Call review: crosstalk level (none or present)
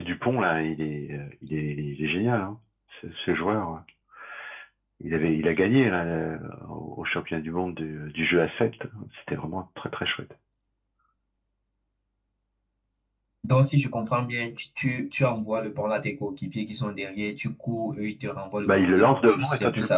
present